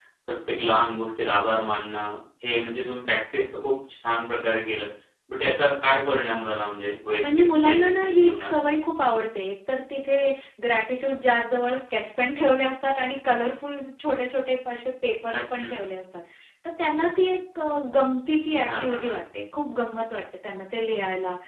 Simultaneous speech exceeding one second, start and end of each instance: 7.2-8.5

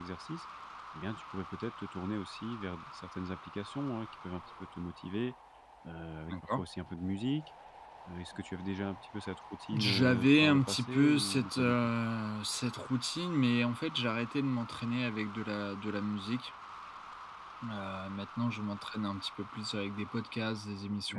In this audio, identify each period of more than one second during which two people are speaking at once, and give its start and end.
9.7-11.8

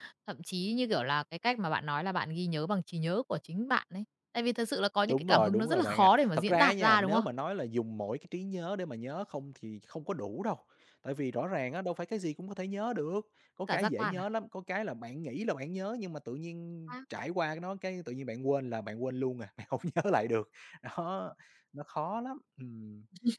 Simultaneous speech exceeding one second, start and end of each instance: 5.1-7.2

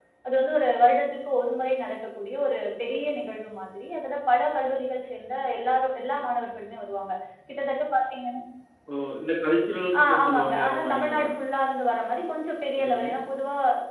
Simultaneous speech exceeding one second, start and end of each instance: 10.0-11.2

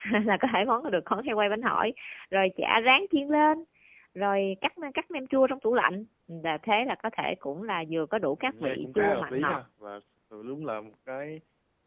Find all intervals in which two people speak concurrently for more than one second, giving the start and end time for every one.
8.4-9.6

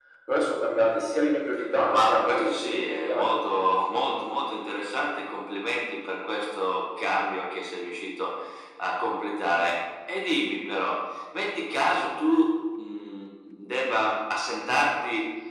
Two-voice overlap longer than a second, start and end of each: 1.9-3.3

